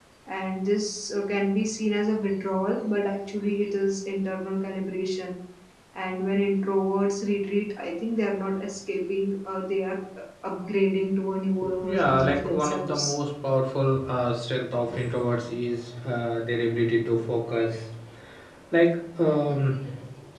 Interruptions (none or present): present